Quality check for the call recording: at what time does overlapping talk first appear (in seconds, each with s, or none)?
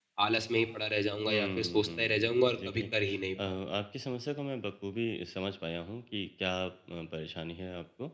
1.3 s